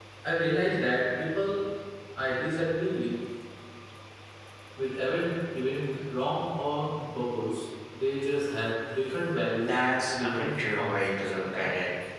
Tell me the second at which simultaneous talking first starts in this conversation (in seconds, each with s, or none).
9.6 s